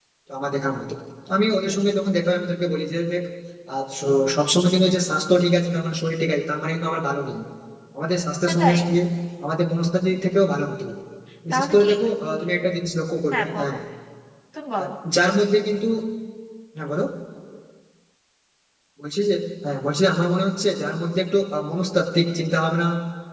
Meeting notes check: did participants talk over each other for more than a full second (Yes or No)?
No